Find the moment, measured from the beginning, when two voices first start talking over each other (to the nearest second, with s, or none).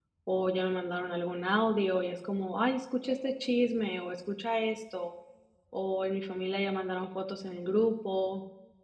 none